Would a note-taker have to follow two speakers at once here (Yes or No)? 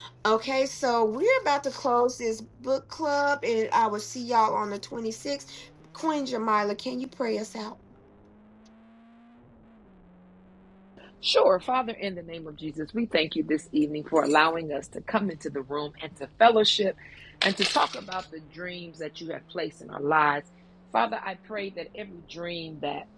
No